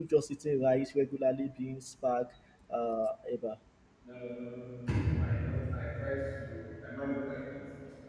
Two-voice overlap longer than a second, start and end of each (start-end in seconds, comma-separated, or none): none